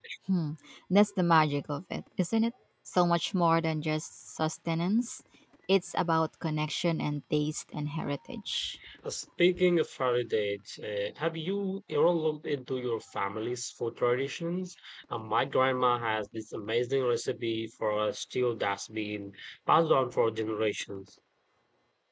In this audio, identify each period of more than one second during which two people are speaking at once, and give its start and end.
none

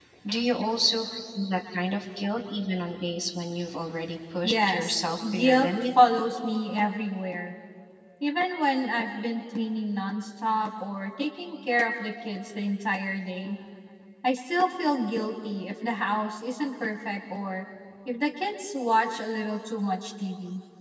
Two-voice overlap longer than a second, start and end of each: 4.4-5.7

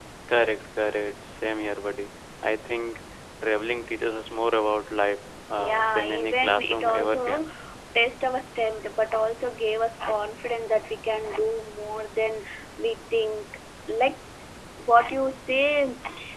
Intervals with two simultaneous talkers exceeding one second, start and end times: 5.6-7.5

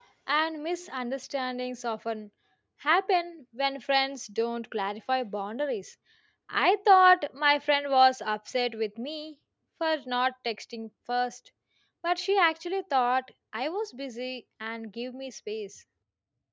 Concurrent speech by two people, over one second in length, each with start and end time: none

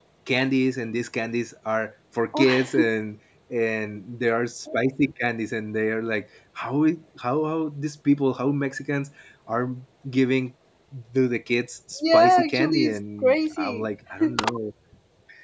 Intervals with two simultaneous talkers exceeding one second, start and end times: 12.1-13.9

